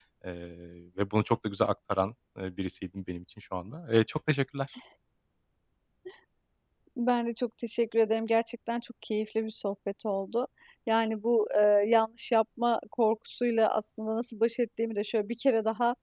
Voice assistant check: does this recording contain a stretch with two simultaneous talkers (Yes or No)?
No